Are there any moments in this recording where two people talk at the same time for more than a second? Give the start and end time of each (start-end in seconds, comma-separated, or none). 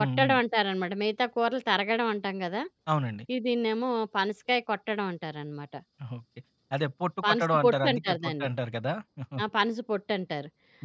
7.2-8.5